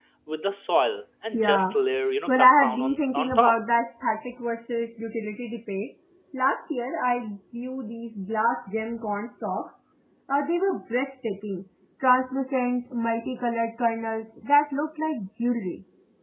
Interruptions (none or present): present